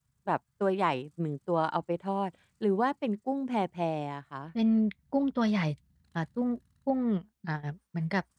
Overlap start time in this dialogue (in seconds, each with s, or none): none